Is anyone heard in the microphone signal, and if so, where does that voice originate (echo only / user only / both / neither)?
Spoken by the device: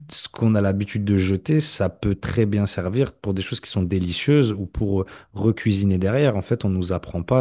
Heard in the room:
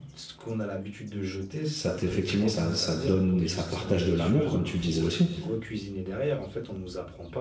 both